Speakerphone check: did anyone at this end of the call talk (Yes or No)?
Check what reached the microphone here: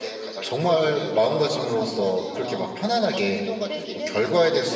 Yes